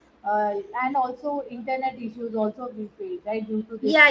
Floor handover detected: Yes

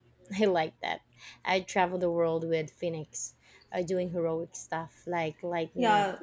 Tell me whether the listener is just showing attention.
Yes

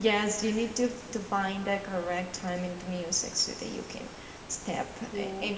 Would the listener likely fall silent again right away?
No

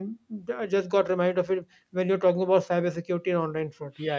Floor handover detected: Yes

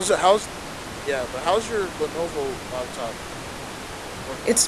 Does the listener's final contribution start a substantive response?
Yes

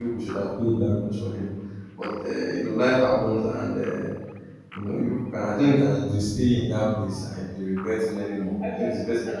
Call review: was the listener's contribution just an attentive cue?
No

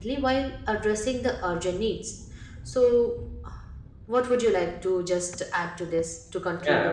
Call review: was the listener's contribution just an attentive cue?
No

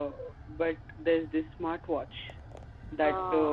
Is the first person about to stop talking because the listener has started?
No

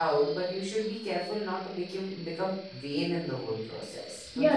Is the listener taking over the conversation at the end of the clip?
Yes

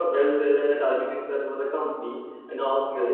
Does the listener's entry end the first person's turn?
No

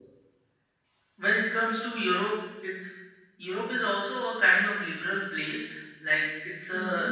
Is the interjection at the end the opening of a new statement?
No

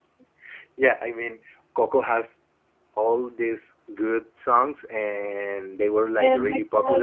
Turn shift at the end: No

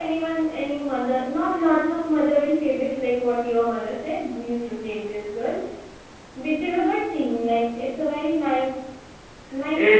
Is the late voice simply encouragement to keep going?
No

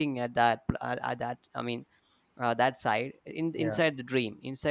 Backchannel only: Yes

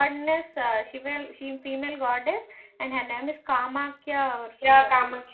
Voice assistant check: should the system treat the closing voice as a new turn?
Yes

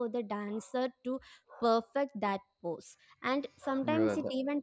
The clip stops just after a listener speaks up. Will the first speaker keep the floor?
Yes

